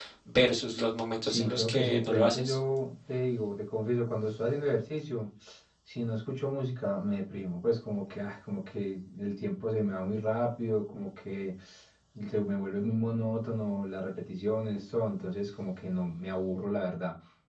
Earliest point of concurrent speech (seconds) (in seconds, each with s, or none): 1.2 s